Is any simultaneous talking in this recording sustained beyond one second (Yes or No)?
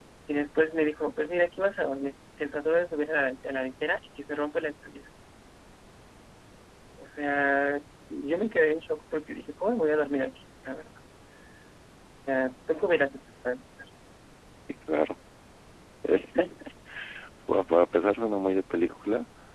No